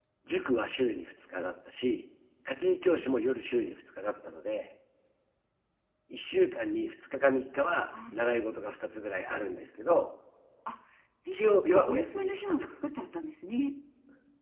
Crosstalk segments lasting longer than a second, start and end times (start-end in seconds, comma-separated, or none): 11.3-12.5